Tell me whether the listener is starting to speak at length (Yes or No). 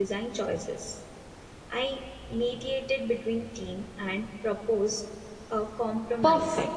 Yes